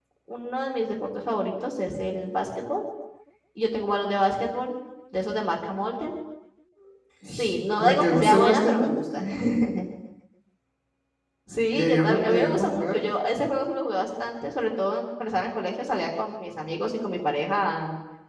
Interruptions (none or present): present